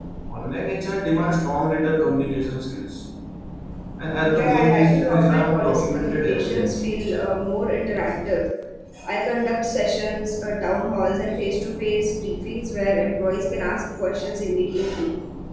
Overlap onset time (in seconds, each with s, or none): 4.2 s